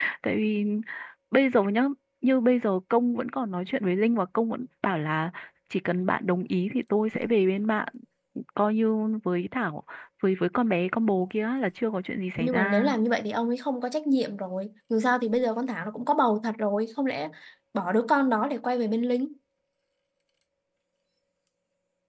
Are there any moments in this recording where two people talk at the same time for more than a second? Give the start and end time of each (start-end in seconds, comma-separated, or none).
none